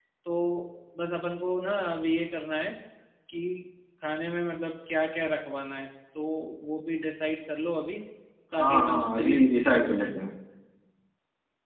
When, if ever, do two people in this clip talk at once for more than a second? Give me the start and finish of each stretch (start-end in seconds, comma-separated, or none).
8.6-10.1